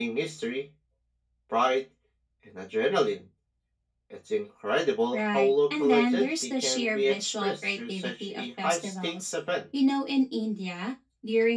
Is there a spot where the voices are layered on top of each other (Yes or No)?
Yes